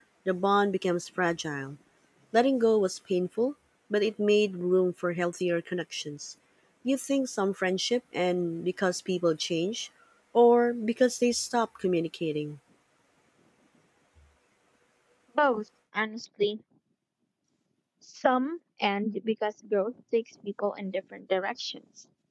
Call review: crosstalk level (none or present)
none